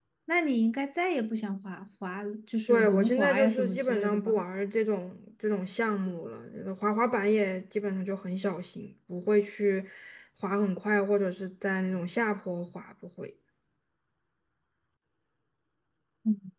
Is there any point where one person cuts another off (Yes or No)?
Yes